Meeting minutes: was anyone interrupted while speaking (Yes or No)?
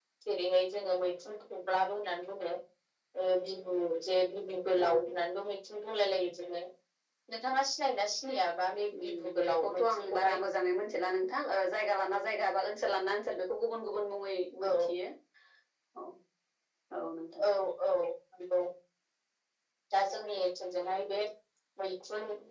Yes